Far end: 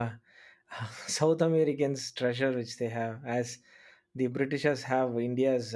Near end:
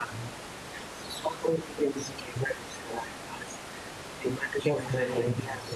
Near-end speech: present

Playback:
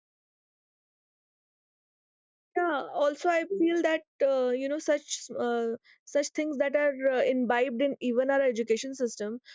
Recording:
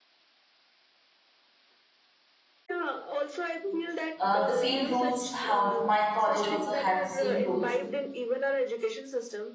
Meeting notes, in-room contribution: present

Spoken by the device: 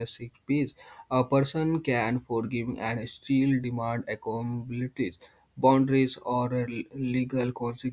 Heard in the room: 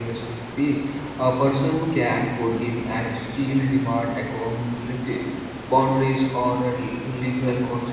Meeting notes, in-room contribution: none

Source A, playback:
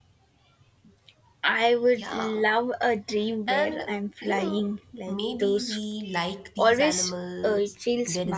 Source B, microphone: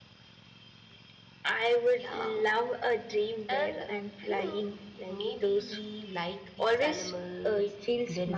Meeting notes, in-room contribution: none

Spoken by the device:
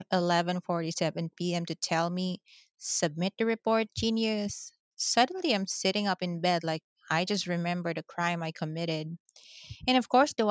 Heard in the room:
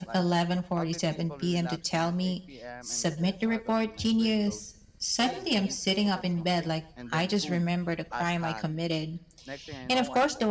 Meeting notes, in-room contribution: present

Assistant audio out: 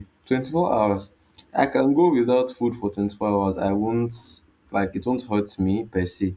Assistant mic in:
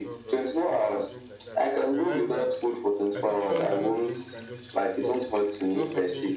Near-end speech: present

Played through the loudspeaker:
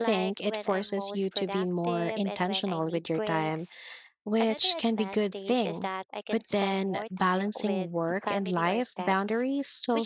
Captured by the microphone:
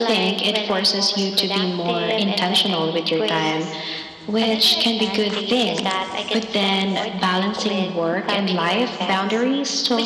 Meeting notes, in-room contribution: none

